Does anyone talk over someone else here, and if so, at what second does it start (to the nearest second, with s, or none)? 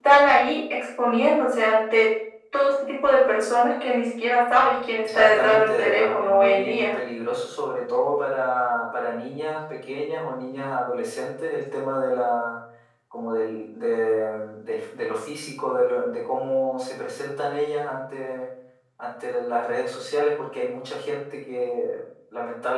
5 s